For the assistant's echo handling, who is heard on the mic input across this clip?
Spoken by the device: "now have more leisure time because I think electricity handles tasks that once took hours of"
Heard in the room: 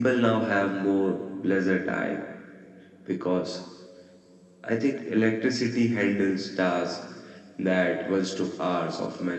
echo only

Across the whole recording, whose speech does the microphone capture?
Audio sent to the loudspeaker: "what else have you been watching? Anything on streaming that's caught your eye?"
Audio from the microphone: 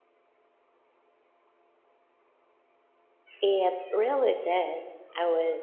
user only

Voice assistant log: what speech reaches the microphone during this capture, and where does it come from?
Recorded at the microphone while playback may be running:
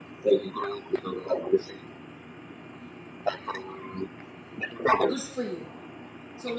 both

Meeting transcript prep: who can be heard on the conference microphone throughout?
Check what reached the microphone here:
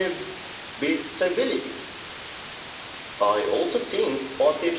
echo only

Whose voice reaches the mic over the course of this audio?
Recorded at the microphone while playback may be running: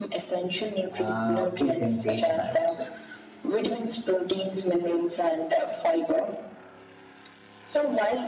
both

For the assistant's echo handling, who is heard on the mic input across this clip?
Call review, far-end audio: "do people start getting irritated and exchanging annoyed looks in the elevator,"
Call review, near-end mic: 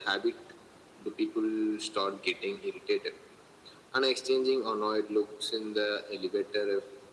echo only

